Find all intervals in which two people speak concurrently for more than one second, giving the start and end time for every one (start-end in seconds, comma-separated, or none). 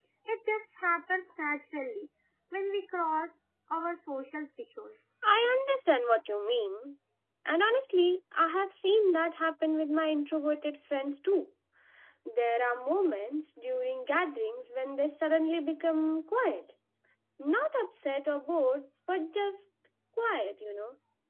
none